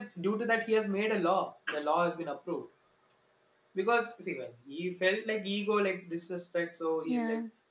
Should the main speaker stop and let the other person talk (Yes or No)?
No